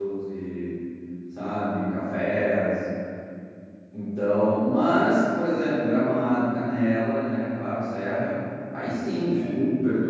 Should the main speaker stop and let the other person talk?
No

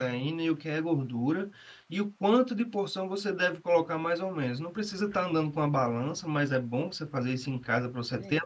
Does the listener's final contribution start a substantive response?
No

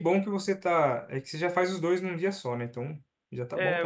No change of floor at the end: No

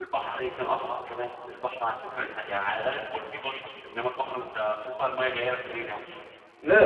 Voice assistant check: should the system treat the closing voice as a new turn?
Yes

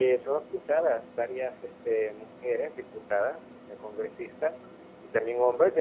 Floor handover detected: No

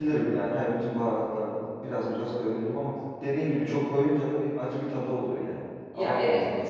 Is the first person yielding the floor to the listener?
Yes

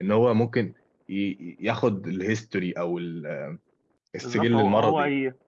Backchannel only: No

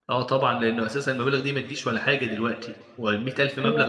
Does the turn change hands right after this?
No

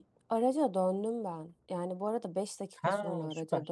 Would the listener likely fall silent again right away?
Yes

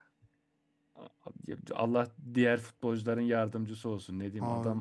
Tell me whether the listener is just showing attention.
Yes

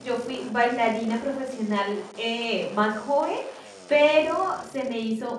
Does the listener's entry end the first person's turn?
No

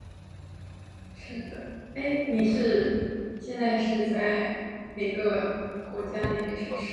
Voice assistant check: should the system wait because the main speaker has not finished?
No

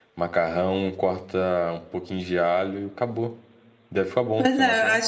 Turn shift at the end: Yes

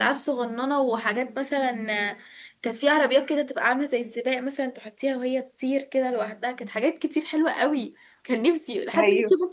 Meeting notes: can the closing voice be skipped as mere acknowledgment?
Yes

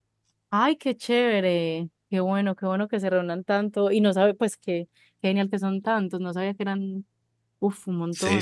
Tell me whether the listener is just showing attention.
No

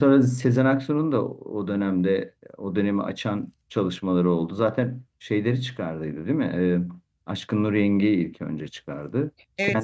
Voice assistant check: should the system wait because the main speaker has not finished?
No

